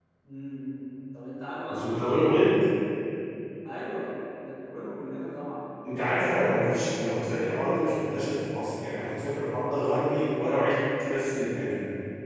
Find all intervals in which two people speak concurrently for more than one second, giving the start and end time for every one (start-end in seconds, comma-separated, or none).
none